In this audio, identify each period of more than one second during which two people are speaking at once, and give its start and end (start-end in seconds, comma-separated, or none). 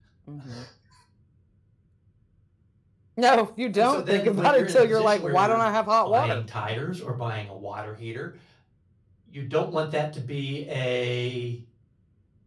3.7-5.6